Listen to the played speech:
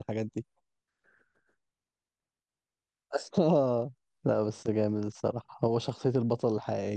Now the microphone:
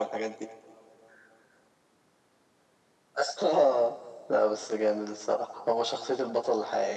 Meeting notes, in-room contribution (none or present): none